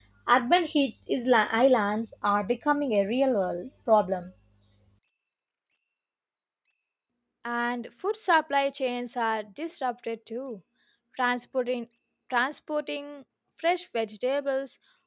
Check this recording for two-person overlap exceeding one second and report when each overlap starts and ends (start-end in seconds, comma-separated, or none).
none